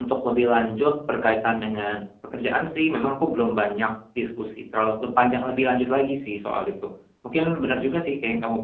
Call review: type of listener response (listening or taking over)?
listening